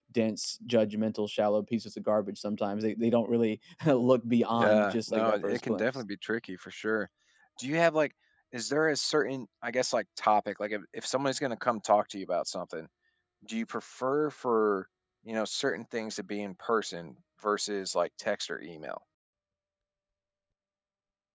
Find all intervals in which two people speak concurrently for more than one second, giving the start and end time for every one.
4.5-5.8

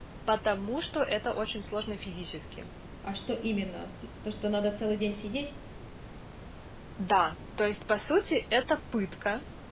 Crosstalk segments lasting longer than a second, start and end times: none

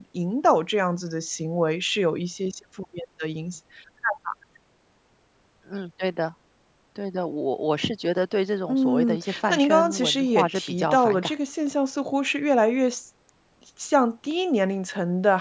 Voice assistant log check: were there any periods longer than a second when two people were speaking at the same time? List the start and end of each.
8.7-11.3

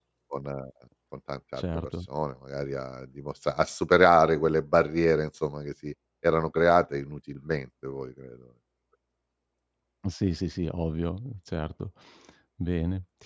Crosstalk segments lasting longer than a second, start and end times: none

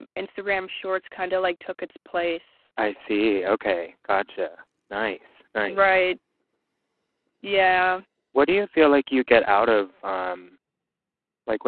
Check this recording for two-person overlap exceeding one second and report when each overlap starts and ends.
none

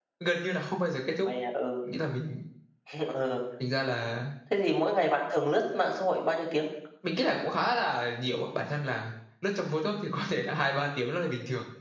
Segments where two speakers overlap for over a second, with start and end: none

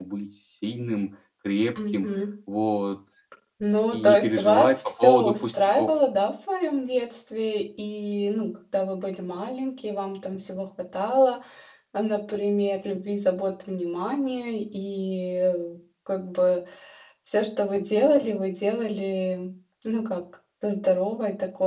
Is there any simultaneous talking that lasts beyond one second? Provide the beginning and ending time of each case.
3.9-5.9

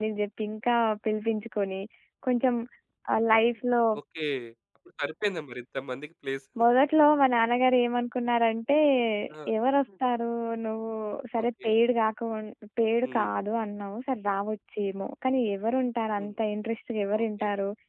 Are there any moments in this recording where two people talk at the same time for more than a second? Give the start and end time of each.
none

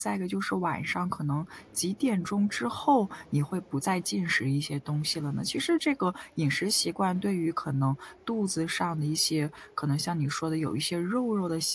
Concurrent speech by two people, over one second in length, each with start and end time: none

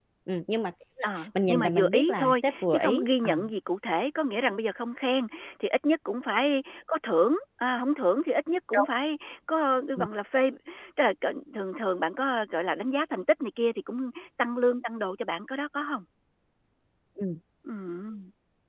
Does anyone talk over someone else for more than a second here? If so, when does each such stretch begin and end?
1.0-3.3

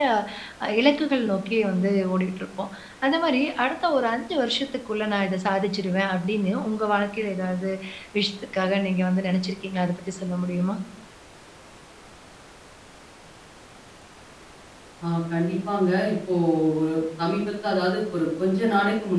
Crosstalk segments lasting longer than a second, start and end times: none

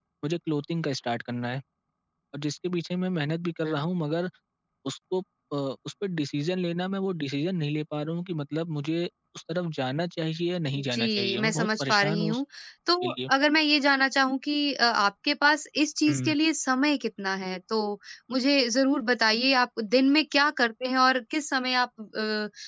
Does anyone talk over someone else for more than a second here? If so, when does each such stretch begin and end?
10.8-12.4

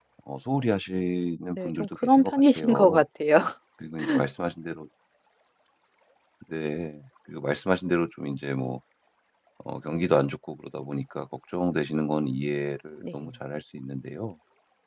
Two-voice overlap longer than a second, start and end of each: 1.6-3.0

